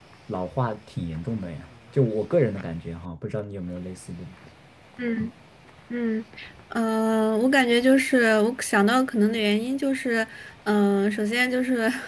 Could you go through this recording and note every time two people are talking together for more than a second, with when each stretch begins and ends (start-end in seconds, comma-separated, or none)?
none